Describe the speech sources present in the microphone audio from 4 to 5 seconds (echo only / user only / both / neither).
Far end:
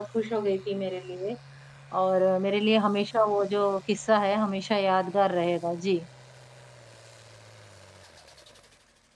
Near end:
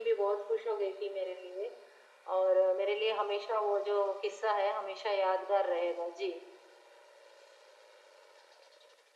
echo only